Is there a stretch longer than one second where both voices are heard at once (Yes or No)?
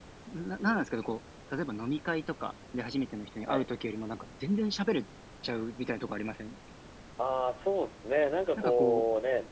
No